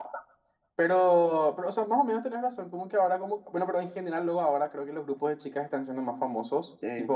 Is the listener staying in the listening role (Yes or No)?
Yes